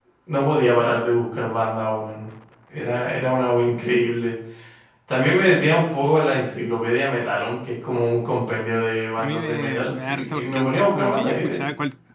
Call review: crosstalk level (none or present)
present